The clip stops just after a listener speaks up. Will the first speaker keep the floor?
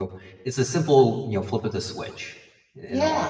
No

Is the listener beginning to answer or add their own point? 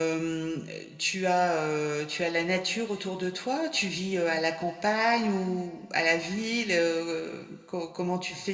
No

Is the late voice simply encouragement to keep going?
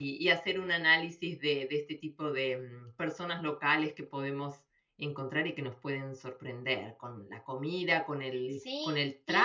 Yes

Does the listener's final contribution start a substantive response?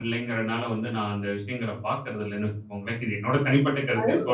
Yes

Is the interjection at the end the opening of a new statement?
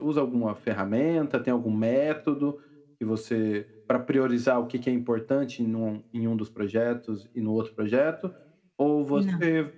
No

